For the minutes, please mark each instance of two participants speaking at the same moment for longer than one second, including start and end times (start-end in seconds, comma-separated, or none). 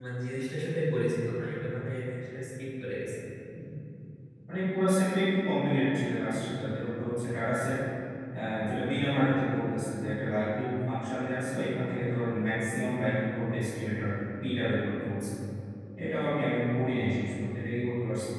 none